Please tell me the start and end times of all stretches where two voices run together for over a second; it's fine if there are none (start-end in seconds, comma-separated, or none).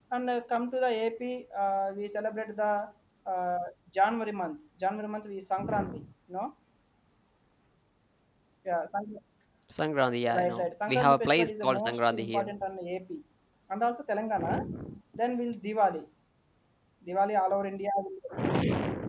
10.4-12.5